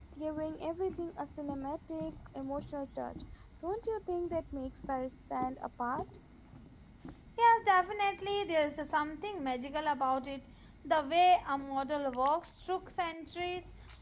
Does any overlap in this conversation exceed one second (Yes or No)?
No